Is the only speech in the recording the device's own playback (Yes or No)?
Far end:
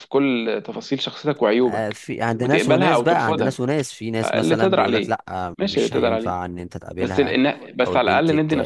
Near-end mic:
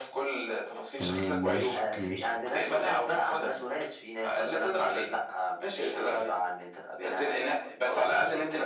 No